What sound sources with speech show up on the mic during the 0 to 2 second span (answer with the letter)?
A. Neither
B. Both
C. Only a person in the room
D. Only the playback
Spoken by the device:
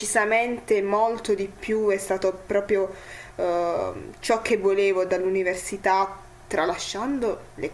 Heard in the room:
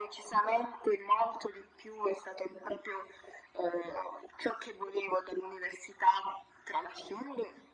D